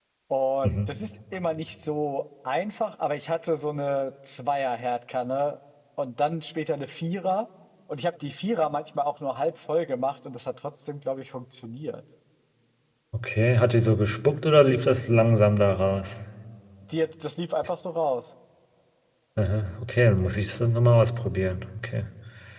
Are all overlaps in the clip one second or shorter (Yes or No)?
Yes